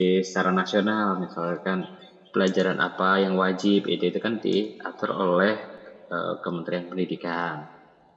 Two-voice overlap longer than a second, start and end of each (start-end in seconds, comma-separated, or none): none